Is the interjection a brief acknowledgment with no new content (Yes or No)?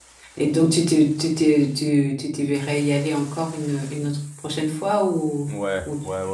No